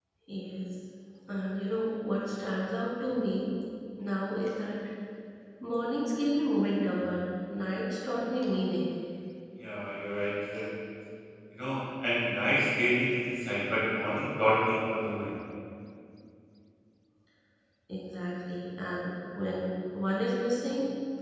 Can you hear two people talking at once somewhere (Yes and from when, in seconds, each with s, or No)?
No